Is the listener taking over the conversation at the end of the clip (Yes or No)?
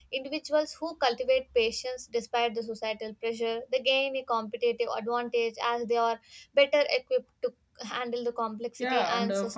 Yes